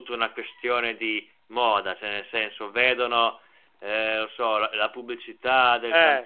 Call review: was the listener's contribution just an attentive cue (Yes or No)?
Yes